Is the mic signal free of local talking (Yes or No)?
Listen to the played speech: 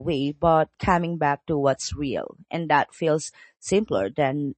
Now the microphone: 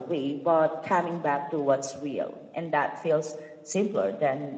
Yes